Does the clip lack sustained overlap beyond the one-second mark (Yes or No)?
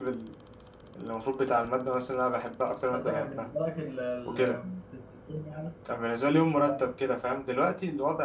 Yes